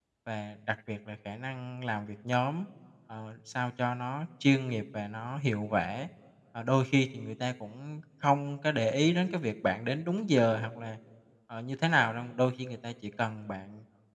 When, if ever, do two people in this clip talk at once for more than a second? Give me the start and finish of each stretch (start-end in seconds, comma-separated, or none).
none